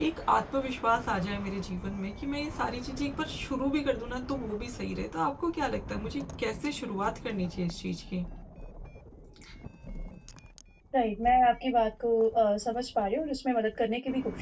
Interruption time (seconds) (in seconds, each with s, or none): none